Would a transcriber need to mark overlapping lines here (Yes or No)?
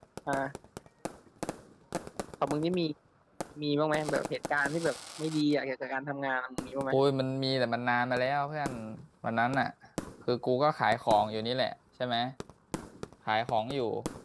No